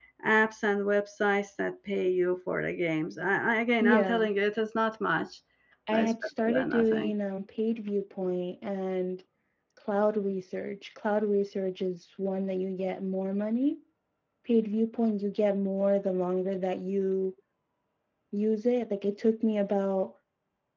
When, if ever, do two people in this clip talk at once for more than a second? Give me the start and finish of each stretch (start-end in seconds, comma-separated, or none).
5.9-7.1